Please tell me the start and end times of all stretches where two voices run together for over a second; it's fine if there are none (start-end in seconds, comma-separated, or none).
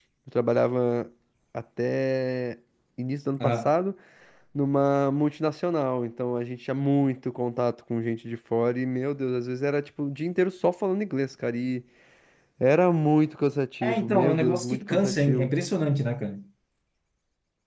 13.8-15.5